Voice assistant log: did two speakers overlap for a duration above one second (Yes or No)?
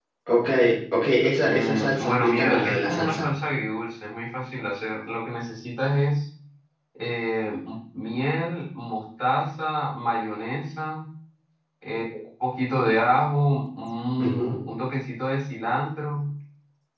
Yes